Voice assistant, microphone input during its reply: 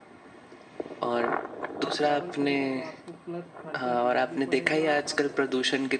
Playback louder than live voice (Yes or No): Yes